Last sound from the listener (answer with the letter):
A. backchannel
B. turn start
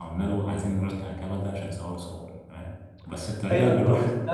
B